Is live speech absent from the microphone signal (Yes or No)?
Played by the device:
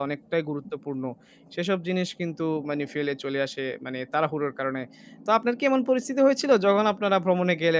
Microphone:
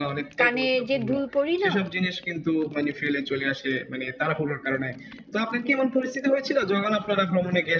No